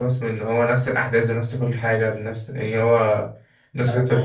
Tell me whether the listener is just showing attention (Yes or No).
No